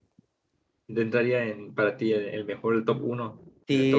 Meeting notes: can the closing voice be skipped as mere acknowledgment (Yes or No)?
No